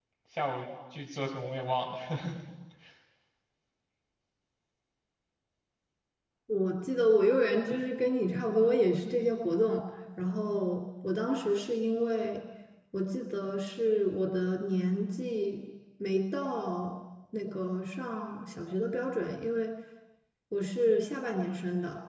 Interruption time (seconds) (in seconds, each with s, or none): none